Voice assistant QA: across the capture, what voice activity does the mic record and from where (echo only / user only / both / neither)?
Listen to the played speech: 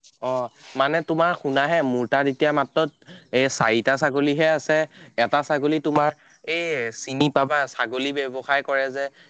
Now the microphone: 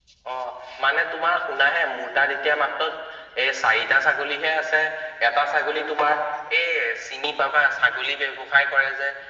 echo only